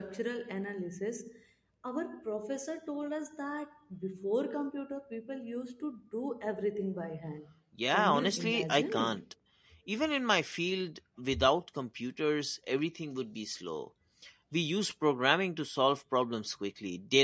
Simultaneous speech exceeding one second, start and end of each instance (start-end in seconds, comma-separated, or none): 7.9-9.2